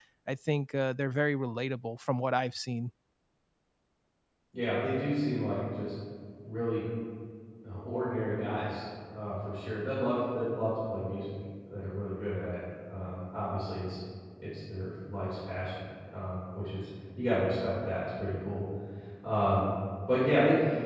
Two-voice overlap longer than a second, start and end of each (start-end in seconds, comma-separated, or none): none